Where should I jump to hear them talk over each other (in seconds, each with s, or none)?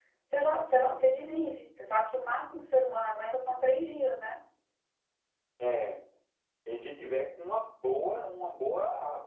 none